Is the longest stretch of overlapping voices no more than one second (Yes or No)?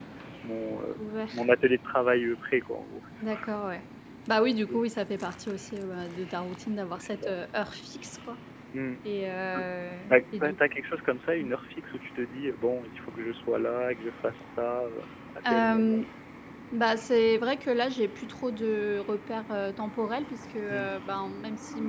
Yes